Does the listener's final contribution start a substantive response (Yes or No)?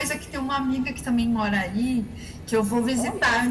No